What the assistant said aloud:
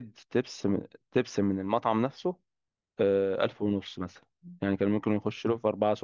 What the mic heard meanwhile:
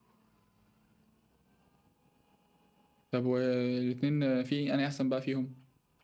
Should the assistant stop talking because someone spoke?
Yes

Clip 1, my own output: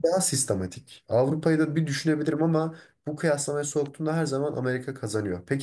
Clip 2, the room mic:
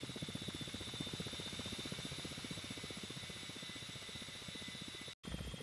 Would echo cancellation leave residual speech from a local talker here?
No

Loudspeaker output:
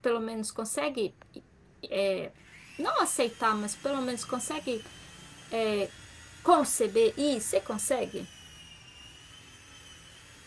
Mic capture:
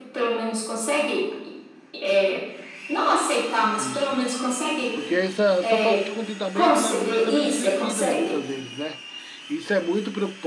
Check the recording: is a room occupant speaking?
Yes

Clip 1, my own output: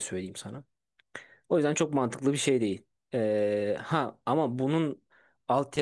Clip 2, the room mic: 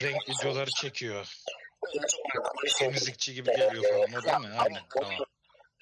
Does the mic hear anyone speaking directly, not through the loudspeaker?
Yes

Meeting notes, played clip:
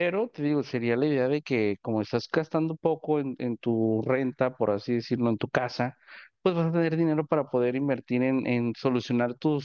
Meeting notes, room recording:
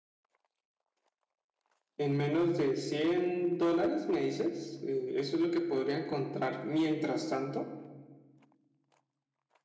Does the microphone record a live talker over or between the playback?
Yes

